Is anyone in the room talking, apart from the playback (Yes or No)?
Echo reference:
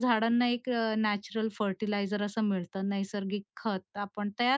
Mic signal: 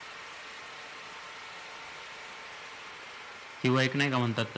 Yes